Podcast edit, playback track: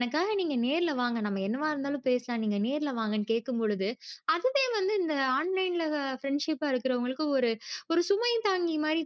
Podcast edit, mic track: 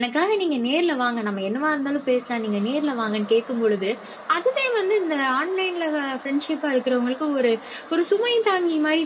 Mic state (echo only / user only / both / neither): echo only